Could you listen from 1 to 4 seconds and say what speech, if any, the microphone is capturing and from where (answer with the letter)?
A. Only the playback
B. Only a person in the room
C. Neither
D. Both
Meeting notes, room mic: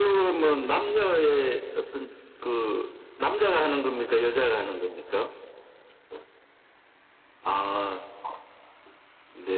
A